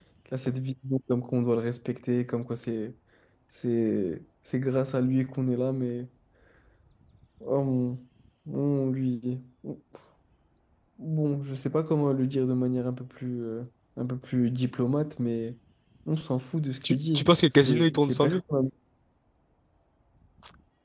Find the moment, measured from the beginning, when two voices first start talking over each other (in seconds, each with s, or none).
16.8 s